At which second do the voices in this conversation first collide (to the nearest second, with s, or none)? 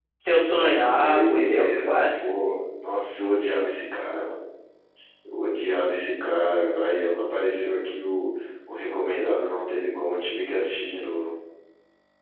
1 s